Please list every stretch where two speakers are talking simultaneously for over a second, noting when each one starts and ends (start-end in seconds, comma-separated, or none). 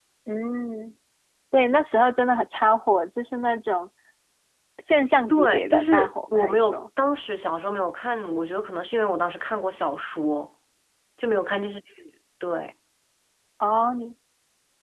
5.3-6.8